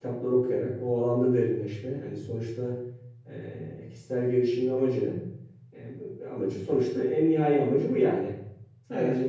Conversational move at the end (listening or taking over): listening